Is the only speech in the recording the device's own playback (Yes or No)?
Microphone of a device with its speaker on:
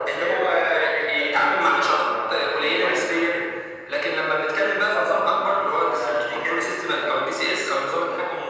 Yes